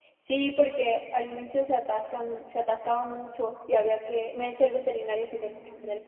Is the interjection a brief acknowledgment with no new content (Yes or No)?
Yes